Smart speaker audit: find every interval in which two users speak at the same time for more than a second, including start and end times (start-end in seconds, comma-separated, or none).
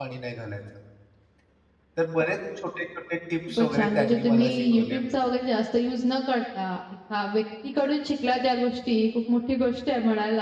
3.5-5.0